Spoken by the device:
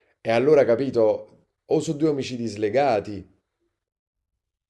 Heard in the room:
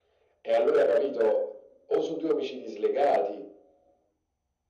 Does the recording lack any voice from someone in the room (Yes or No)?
Yes